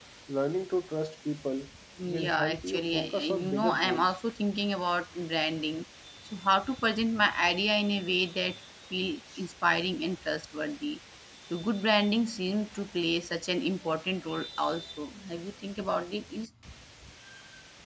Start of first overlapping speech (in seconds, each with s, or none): 2.2 s